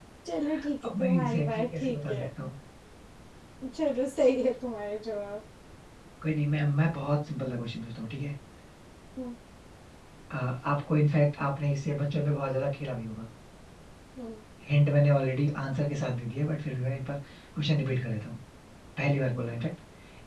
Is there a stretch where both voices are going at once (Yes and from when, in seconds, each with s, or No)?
Yes, from 0.8 s